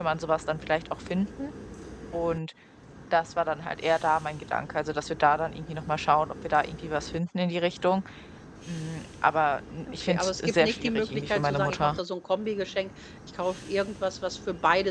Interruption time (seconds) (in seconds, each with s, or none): 9.8 s